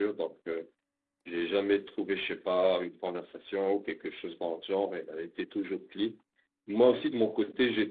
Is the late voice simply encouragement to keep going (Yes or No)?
Yes